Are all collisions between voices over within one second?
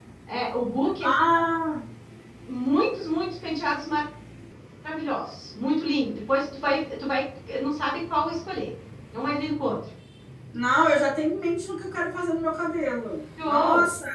Yes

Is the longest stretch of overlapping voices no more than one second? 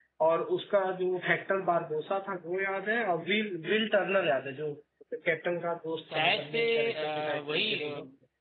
No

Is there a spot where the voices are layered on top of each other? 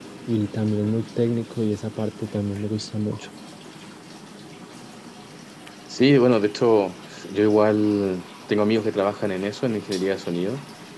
No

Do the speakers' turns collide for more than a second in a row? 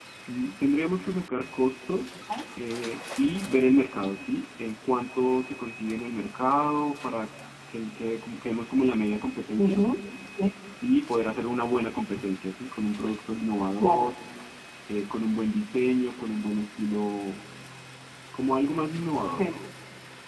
No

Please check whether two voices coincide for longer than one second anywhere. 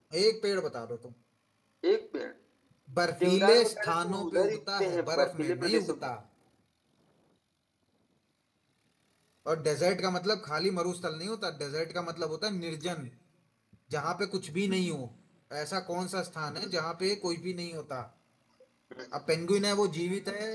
Yes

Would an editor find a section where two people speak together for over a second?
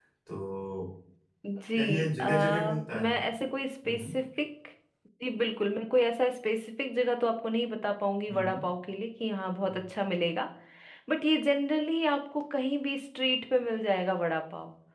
Yes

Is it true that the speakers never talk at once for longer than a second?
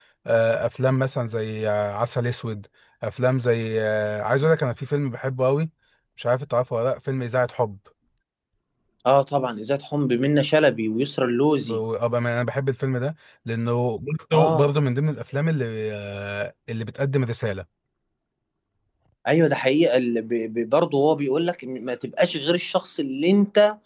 Yes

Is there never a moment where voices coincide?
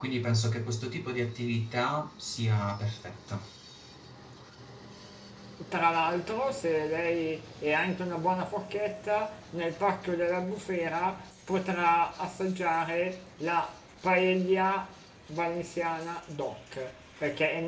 Yes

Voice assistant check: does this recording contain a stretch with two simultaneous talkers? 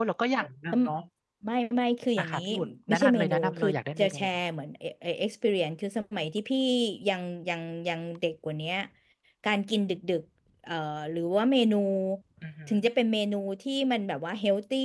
Yes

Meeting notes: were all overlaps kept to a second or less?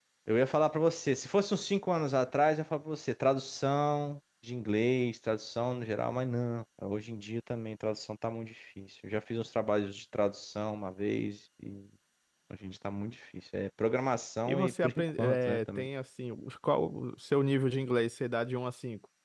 No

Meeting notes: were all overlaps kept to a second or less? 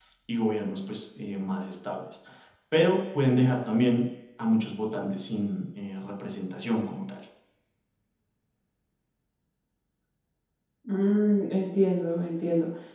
Yes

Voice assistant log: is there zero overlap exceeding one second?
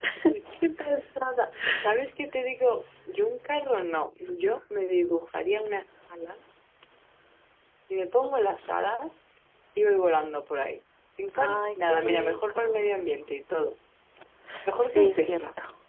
No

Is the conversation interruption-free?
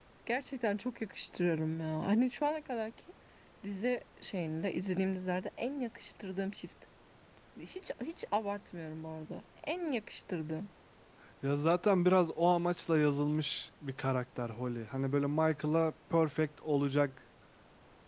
Yes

